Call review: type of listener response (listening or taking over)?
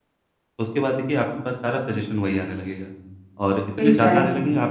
listening